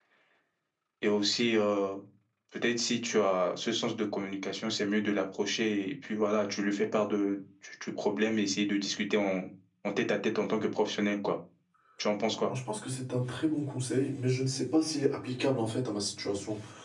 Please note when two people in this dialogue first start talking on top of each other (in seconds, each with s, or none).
none